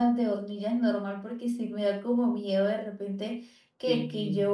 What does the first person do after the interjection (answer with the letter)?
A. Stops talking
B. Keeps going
B